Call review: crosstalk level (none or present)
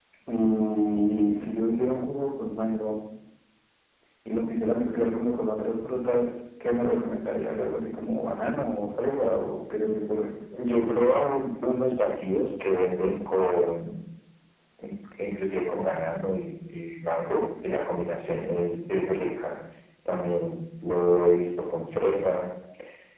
none